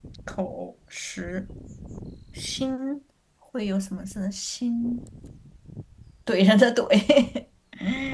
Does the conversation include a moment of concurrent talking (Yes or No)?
No